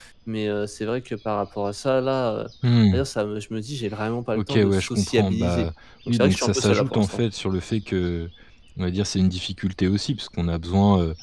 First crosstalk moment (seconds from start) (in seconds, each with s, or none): 4.3 s